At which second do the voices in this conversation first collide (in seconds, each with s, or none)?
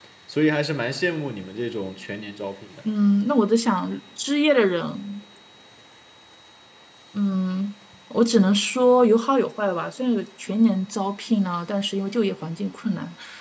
none